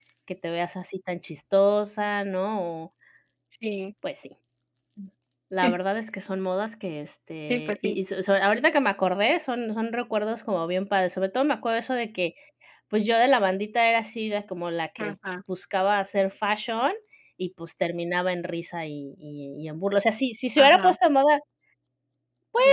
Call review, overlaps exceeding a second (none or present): none